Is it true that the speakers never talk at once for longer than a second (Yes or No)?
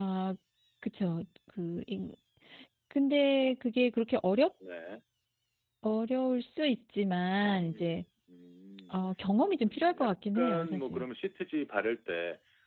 No